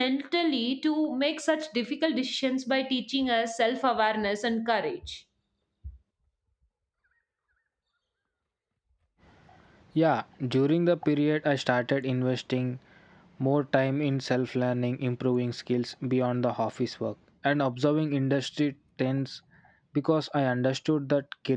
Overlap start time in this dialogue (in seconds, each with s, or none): none